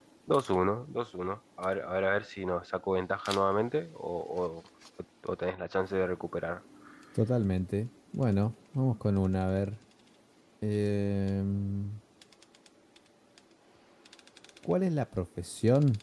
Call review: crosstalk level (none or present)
none